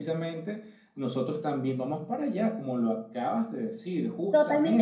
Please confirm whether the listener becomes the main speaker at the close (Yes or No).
Yes